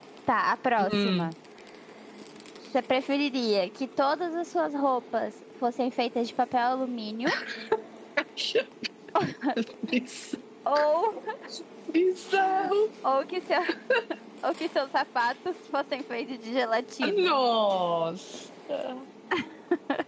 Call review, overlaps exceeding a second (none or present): none